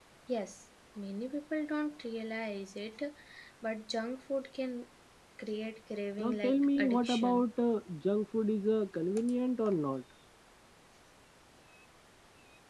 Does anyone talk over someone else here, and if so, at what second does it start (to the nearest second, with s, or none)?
6 s